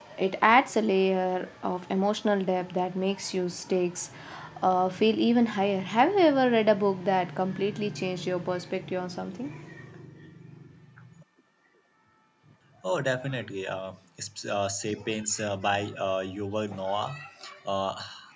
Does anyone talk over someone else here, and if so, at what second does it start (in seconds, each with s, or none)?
none